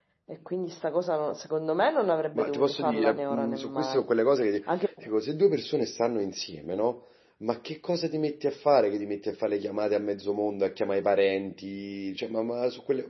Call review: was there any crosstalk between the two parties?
Yes, from 2.4 s

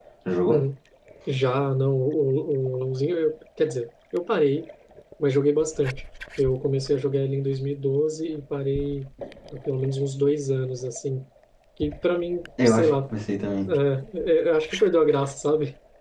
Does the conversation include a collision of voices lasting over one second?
No

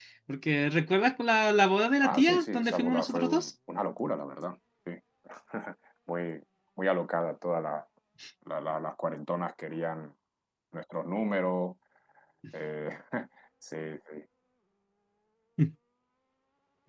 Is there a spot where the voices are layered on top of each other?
Yes, from 2.0 s

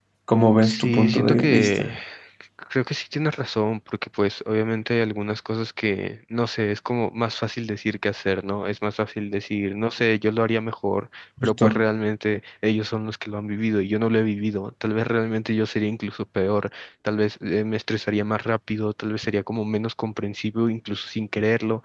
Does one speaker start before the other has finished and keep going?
Yes, from 0.6 s

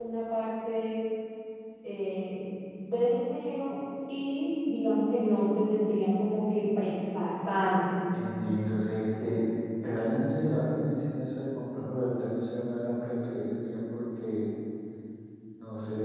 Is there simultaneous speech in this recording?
No

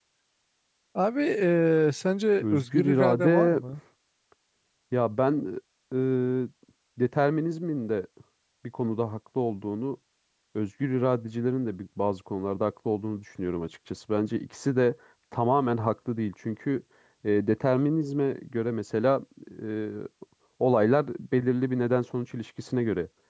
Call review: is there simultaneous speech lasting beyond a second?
Yes, from 2.4 s

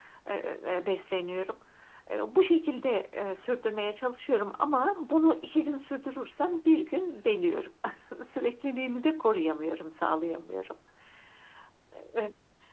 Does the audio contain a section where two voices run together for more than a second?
No

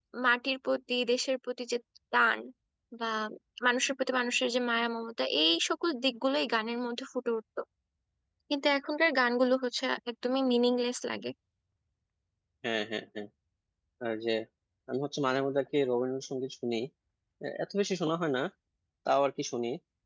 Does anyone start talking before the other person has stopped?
No

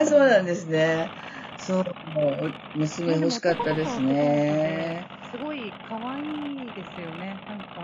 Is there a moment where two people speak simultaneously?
Yes, from 3.1 s

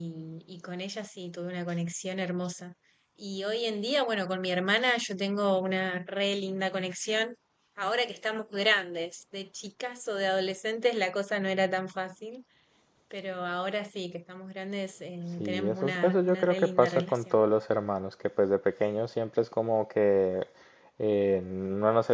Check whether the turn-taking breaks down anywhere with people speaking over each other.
Yes, from 15.4 s

